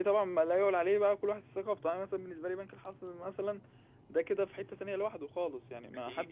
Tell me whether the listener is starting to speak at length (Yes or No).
Yes